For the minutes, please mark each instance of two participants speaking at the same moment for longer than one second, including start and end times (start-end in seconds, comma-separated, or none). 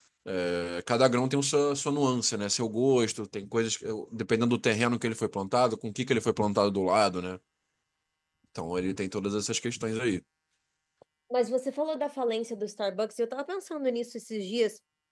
none